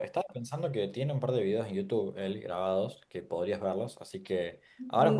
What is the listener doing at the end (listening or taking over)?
listening